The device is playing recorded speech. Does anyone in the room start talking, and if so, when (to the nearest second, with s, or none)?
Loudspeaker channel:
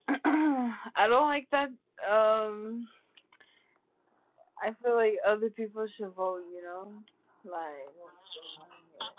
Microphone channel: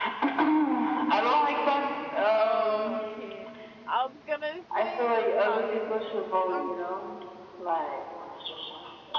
2 s